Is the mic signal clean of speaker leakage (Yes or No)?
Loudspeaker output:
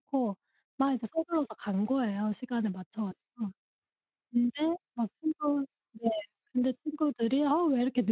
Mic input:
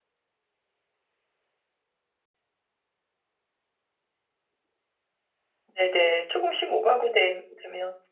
Yes